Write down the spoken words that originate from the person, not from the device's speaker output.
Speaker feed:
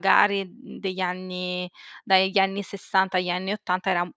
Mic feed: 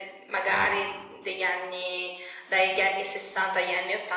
none

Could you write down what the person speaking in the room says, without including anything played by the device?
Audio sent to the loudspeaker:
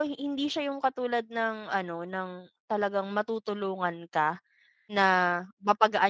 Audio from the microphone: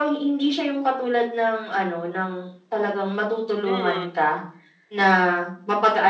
Mm.

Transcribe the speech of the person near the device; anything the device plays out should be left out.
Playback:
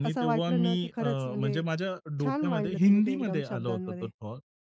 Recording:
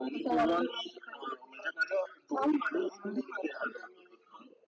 none

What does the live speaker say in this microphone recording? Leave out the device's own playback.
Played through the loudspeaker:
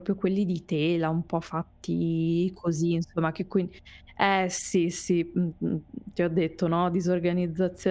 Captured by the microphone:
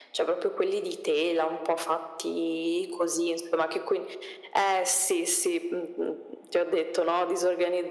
none

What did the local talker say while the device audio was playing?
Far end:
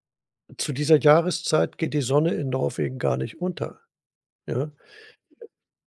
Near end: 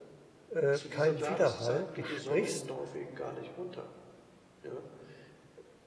äh, kein Widerhall. Du sprichst

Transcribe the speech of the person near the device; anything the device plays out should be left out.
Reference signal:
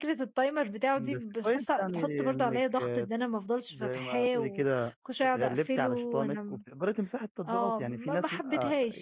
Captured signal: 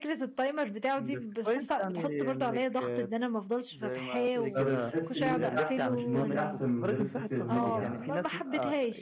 فبتحسي إن أنتِ أحسن، إن أنتِ أحسن من غير السوشيال ميديا

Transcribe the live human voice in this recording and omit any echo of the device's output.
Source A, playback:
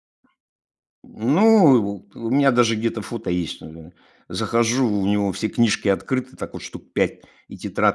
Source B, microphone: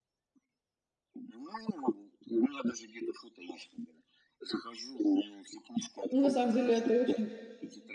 Ну, на самом деле это очень,

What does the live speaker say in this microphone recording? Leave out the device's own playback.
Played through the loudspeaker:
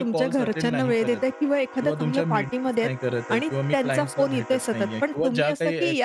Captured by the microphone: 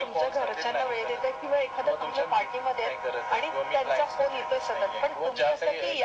none

